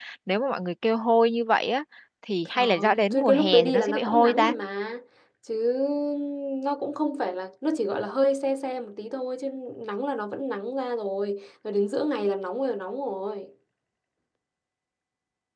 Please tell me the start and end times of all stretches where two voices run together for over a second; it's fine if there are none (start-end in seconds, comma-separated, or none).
2.6-4.5